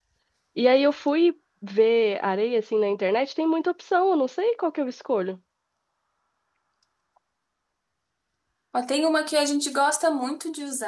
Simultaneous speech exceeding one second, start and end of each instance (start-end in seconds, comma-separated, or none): none